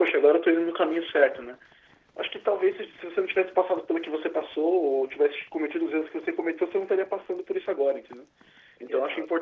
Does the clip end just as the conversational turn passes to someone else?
No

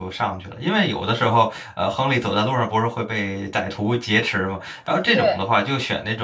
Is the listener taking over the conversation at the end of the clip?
No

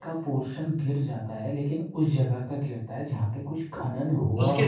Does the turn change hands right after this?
Yes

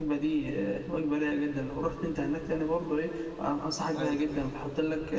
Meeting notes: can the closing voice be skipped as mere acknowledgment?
Yes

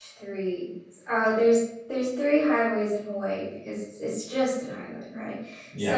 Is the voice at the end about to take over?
No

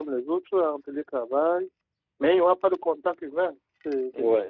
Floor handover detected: Yes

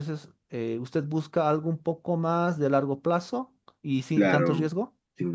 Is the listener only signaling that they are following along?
No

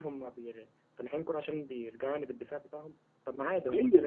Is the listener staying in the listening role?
Yes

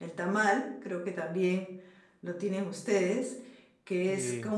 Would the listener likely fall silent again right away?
Yes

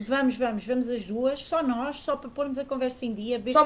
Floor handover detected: No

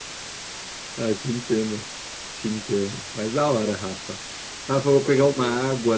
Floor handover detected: No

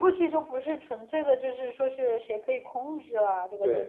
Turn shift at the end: Yes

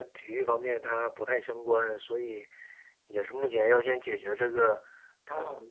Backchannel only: Yes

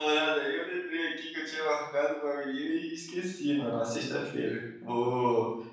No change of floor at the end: Yes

